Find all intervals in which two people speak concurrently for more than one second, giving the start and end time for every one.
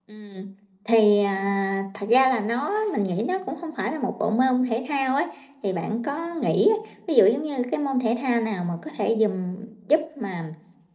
none

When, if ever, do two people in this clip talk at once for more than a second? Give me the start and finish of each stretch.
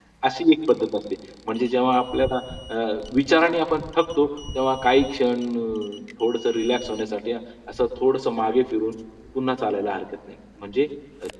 none

